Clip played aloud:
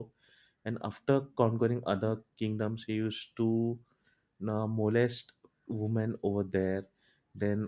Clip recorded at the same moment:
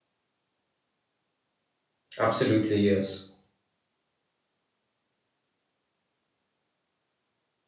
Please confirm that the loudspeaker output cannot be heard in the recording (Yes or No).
Yes